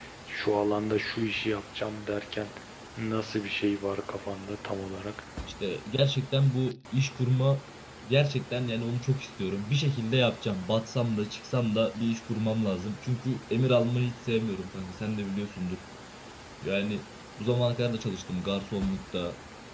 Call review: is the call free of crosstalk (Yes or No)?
Yes